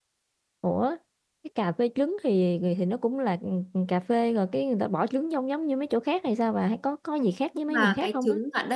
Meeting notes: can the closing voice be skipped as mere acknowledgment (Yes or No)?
No